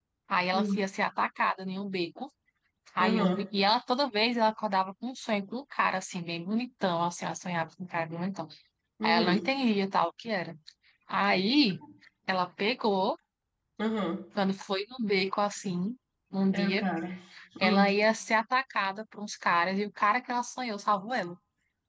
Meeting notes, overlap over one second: none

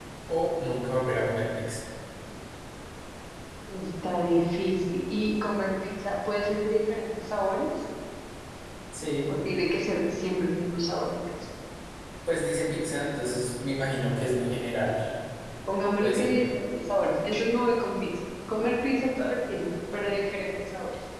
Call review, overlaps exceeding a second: none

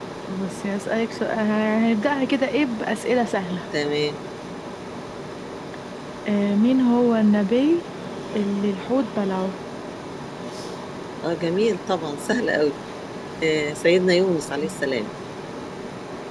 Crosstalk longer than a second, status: none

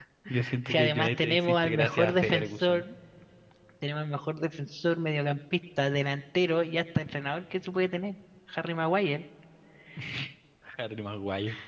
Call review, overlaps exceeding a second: present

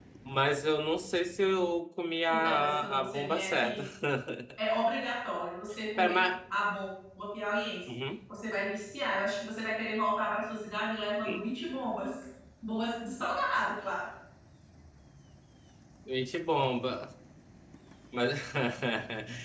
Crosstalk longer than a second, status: present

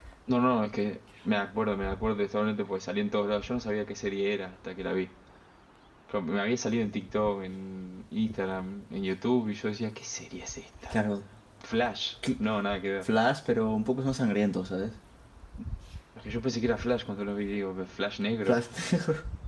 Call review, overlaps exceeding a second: none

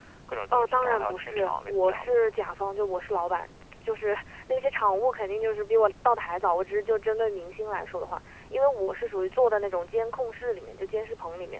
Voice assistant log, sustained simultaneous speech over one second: present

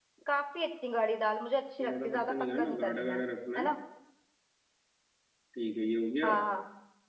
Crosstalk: present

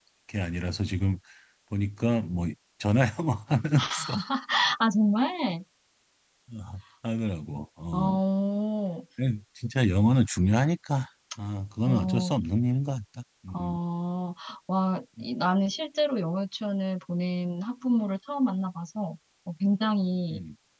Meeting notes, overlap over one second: none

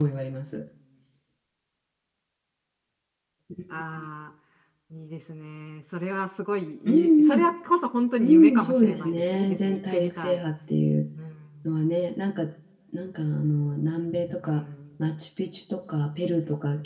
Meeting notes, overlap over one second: present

